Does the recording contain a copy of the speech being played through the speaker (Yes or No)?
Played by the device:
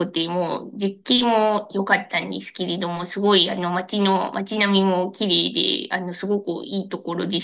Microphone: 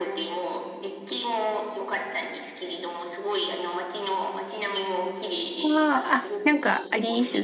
Yes